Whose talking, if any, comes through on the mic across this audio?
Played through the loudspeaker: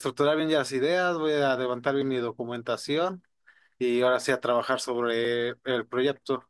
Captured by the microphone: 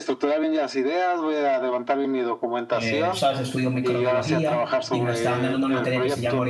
both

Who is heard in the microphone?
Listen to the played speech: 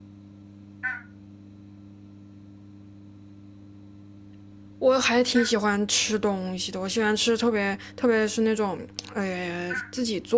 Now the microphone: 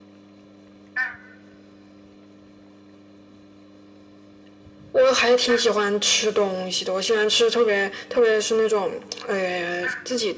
echo only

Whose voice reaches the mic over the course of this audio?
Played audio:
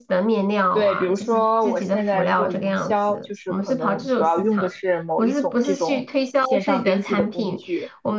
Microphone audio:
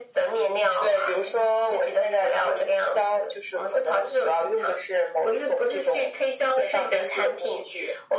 echo only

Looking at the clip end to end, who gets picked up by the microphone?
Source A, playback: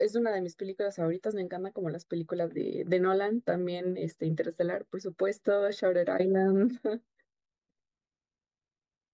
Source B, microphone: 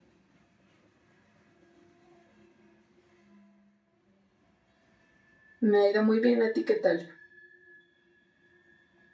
user only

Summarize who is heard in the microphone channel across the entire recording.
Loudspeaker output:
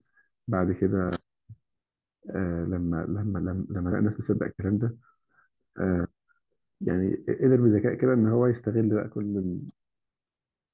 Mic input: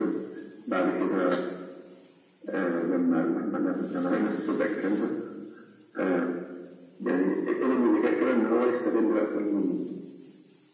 echo only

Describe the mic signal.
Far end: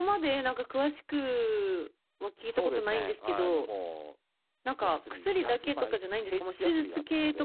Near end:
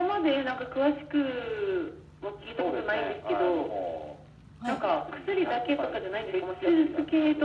both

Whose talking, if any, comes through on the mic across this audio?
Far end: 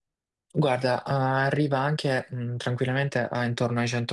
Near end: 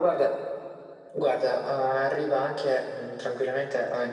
echo only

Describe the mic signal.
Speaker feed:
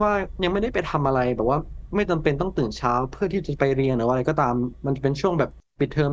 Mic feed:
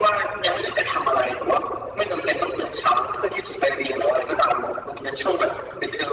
echo only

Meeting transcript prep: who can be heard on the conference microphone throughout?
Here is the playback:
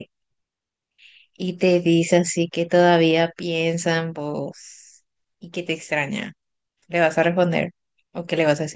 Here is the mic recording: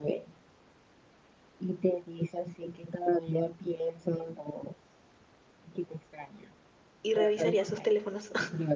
both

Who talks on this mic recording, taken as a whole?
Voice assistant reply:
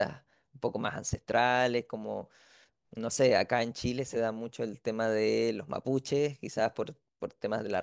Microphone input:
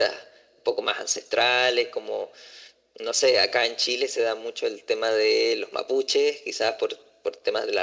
echo only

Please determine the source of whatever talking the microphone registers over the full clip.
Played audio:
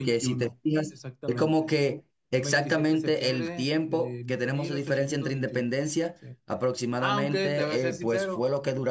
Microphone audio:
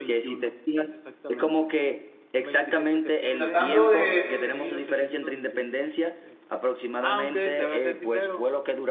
both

